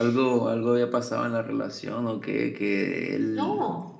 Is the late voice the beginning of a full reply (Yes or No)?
No